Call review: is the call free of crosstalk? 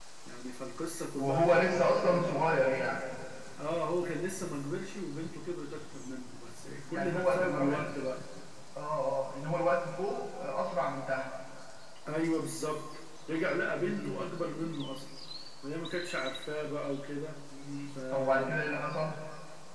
No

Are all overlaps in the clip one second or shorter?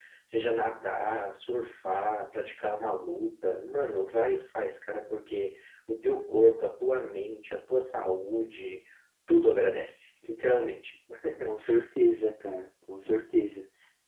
Yes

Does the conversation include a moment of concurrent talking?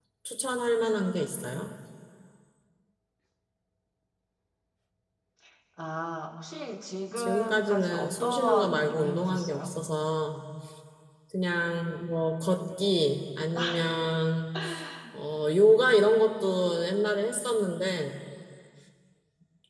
Yes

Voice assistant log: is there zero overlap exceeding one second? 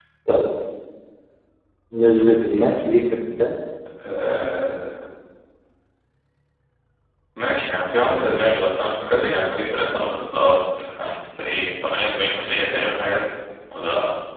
Yes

